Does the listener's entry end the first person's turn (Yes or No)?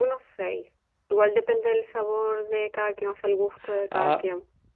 Yes